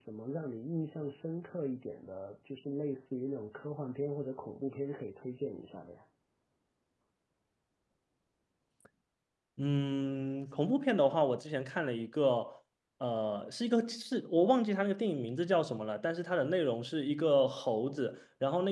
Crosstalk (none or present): none